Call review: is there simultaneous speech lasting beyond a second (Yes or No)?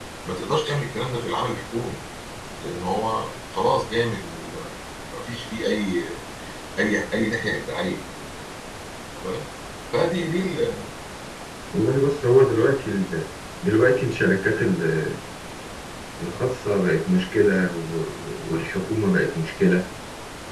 No